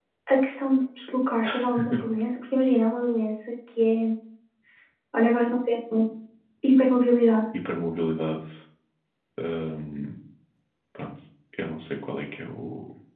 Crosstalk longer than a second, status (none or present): none